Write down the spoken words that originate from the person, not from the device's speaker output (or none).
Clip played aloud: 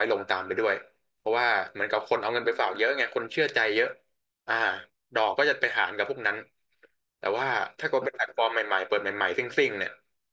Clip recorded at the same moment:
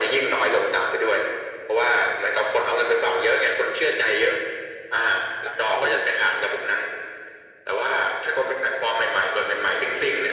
หลายเท่าอยู่